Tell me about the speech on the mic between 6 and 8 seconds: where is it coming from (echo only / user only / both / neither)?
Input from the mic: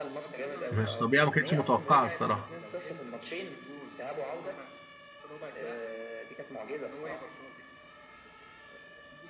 echo only